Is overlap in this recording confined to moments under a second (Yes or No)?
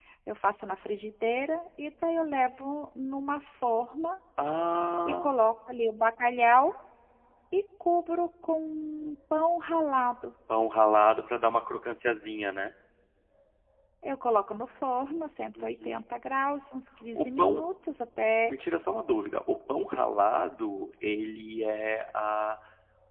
Yes